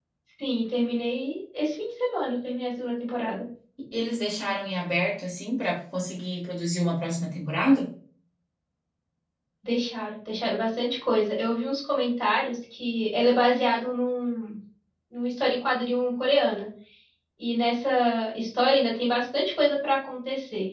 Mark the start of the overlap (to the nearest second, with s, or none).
none